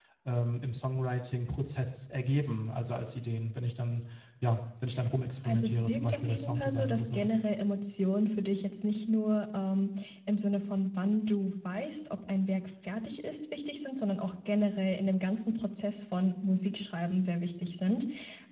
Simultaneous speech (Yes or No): Yes